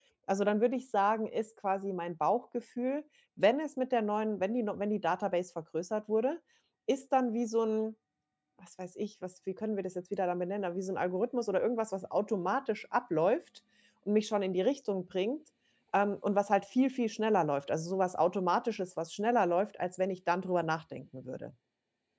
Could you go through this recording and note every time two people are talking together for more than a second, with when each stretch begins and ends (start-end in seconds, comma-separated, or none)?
none